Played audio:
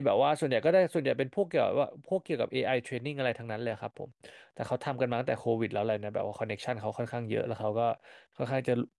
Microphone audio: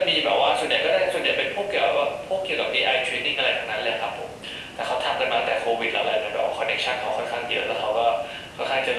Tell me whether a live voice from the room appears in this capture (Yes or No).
No